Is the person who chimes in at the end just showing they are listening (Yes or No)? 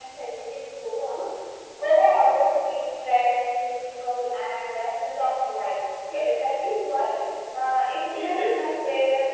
Yes